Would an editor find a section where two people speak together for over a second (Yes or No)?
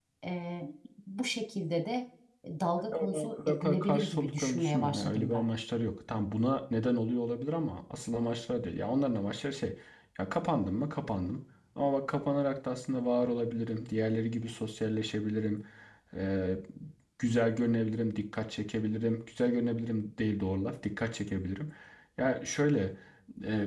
Yes